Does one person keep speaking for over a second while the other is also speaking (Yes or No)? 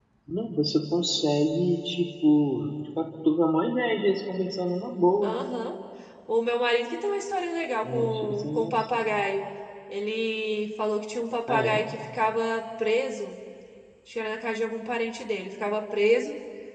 Yes